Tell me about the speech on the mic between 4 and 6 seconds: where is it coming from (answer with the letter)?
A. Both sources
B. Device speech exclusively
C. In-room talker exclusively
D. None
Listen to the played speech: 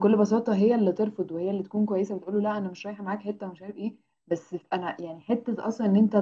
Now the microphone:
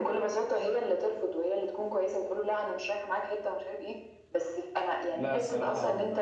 A